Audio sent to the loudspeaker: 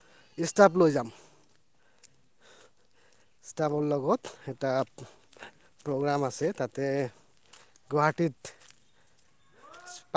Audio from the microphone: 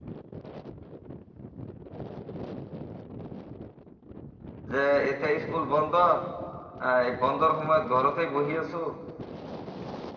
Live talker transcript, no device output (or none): যে এতিয়া স্কুল বন্ধ আহ, এই বন্ধৰ সময়ত ঘৰতে বহি আছো